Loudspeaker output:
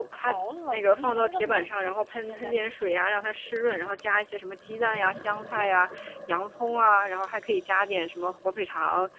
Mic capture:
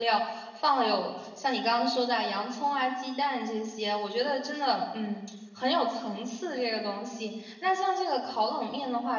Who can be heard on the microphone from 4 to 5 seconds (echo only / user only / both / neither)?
user only